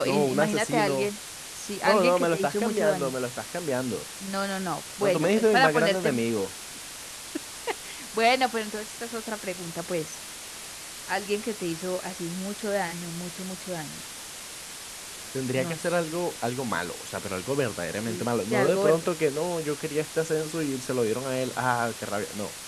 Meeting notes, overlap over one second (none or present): present